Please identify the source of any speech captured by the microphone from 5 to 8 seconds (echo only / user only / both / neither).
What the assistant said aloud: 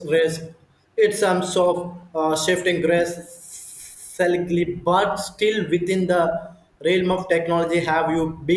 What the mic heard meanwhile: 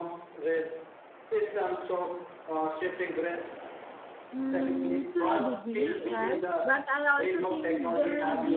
both